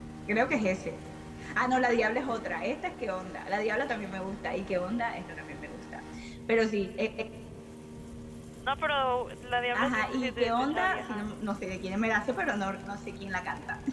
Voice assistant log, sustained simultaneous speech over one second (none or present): present